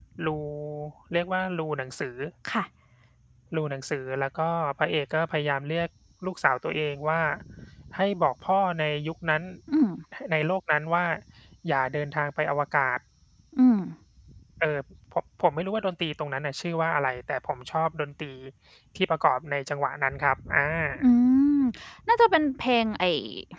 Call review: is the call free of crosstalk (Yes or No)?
Yes